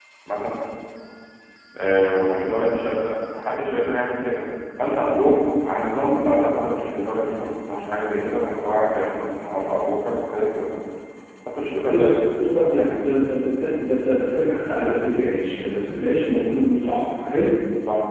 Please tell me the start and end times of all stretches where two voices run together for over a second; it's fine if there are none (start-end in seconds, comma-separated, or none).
11.9-13.1